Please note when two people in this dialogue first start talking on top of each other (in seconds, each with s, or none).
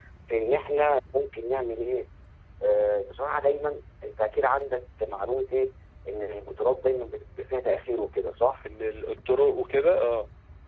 none